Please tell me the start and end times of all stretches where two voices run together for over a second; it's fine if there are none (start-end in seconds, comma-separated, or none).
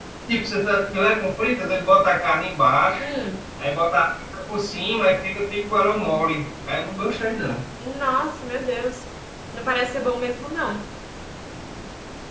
none